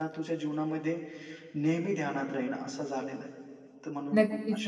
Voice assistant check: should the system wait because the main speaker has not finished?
No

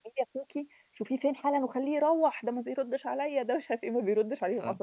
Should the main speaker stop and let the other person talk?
Yes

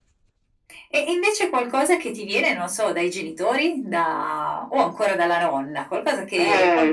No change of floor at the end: No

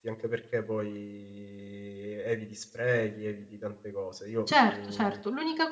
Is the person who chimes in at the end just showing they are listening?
No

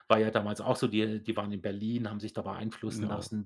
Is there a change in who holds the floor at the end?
No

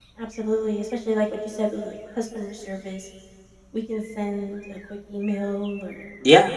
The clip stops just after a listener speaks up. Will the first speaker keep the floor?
Yes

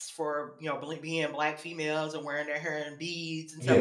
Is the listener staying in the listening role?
Yes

